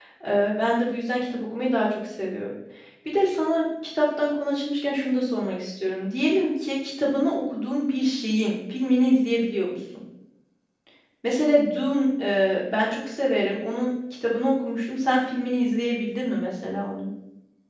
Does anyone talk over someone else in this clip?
No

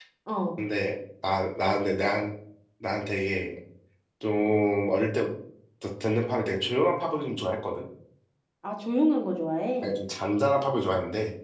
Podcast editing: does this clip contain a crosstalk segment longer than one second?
No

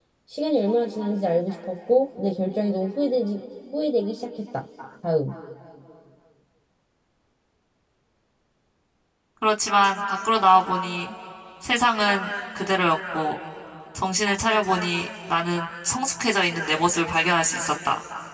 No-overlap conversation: Yes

